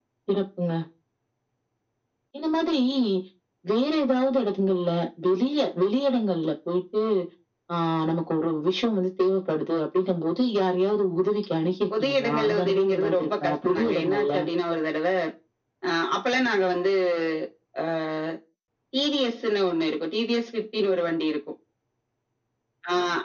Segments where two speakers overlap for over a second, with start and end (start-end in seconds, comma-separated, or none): 12.0-14.3